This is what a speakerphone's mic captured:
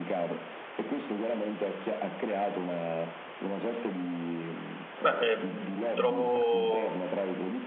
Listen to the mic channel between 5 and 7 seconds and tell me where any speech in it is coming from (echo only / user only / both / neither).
both